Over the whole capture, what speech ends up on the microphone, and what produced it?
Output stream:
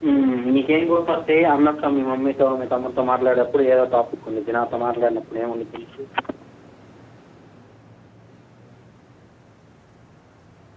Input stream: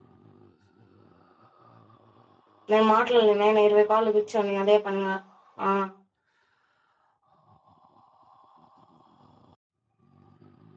user only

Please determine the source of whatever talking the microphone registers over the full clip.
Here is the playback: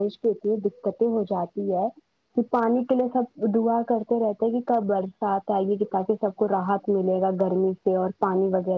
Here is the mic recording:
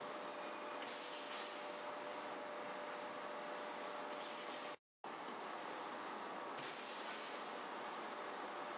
neither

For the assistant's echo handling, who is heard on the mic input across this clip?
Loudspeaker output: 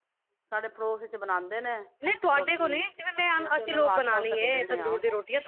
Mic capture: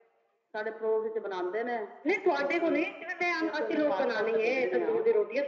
echo only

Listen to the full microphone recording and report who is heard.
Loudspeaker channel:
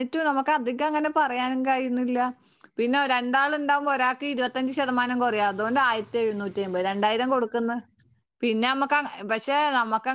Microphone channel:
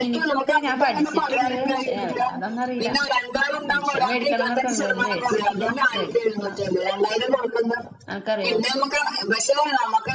both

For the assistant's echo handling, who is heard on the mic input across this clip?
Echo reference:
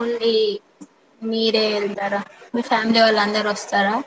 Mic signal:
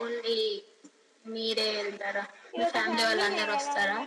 both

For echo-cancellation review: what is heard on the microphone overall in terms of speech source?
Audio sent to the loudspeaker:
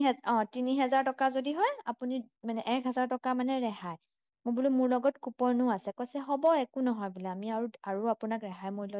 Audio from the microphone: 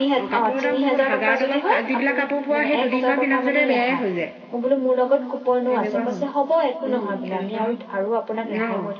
both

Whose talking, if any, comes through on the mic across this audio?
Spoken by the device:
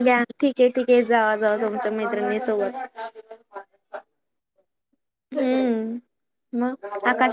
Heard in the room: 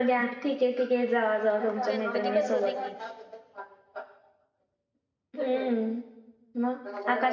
both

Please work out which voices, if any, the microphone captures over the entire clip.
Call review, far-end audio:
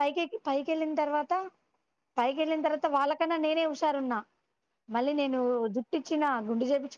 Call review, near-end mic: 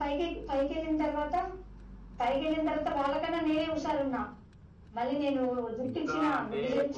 both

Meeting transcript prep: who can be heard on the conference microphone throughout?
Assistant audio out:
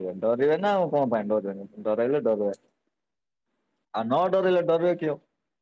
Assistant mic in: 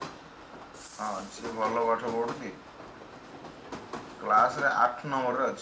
user only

